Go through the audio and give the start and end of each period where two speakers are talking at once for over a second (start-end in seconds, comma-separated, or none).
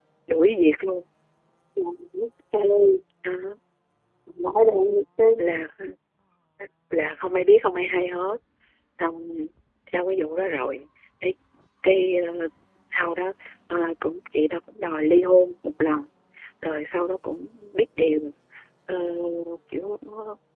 none